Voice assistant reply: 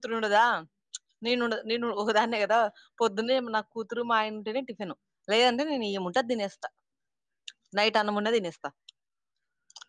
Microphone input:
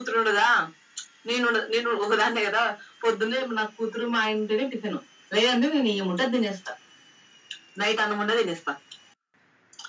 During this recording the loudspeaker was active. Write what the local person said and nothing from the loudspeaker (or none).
none